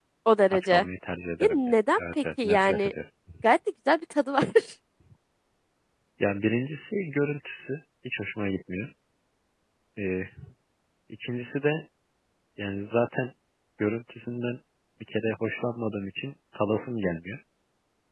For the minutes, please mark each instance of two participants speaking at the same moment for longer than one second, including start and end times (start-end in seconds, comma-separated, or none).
1.4-2.9